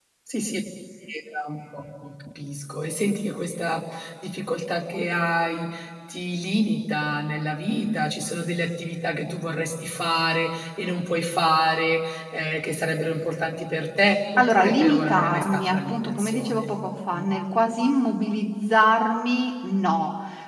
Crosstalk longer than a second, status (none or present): present